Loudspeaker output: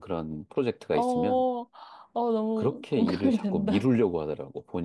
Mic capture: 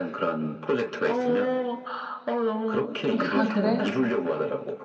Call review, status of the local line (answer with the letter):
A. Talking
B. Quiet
A